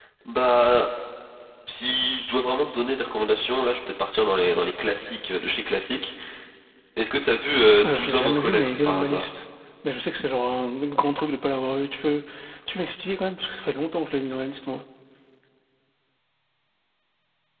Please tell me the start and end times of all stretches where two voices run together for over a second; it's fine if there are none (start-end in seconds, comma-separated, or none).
7.9-9.3